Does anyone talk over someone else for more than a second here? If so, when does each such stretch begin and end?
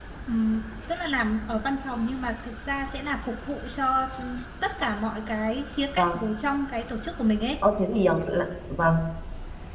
none

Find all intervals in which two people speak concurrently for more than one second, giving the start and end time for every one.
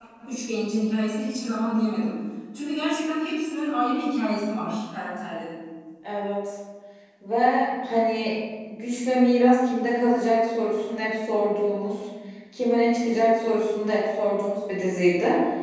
none

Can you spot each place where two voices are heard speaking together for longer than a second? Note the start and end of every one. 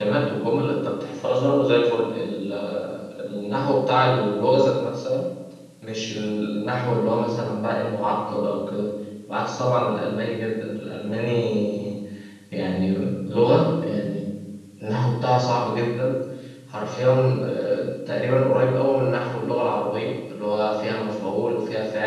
none

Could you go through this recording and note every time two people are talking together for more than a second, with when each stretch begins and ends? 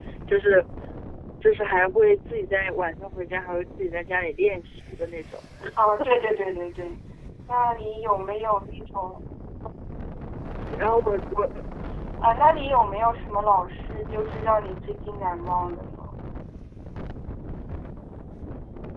none

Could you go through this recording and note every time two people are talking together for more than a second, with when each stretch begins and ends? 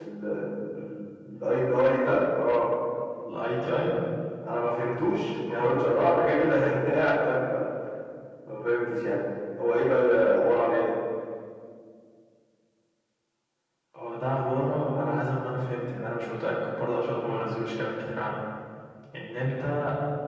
none

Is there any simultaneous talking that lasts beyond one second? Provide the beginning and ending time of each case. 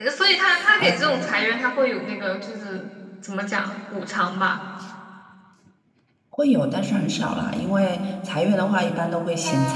none

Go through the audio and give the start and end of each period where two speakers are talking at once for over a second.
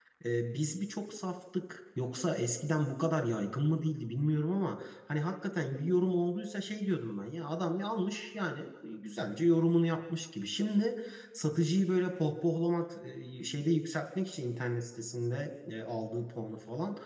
none

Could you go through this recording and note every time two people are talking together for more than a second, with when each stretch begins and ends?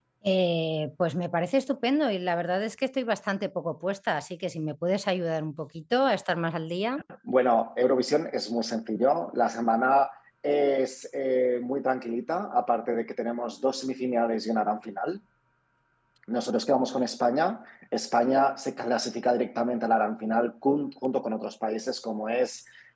none

